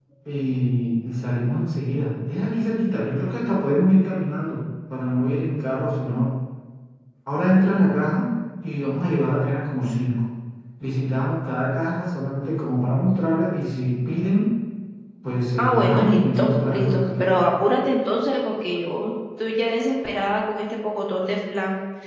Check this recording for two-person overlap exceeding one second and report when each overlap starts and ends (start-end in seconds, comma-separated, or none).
15.6-17.4